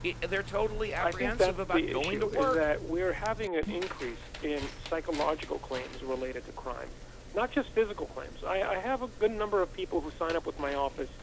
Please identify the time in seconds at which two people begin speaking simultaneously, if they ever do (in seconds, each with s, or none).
1.0 s